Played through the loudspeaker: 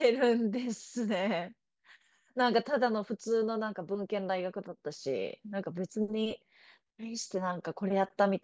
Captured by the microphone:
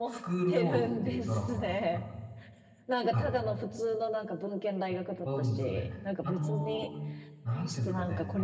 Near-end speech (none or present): present